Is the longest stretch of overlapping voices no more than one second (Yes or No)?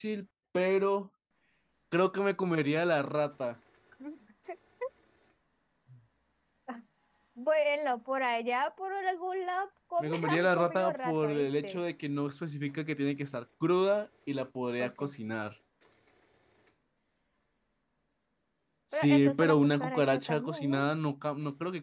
No